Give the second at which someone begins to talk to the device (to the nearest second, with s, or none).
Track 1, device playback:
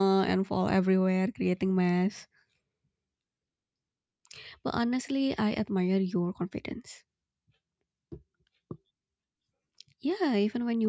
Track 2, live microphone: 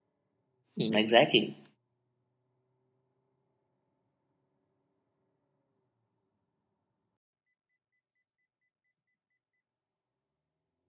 1 s